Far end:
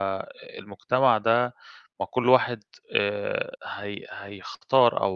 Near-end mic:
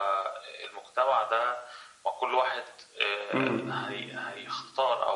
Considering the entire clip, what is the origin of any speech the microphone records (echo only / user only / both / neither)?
both